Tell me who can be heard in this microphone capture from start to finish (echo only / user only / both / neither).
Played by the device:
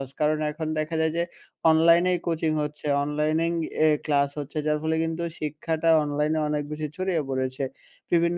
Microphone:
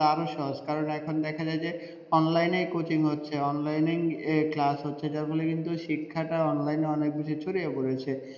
echo only